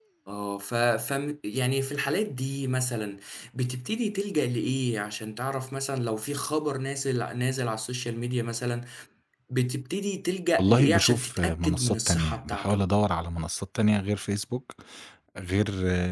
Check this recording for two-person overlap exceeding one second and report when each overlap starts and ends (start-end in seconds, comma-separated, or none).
10.6-12.8